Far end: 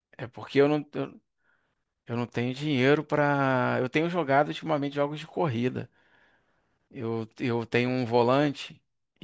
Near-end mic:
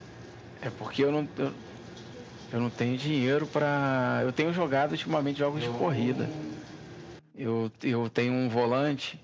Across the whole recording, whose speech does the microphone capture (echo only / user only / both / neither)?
both